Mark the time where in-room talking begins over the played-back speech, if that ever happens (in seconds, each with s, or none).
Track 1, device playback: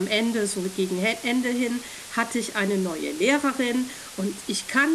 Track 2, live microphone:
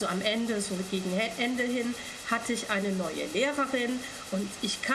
none